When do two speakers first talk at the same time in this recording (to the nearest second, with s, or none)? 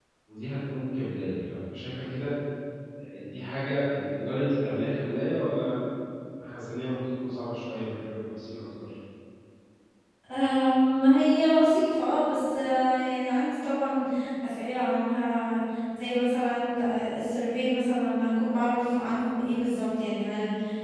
none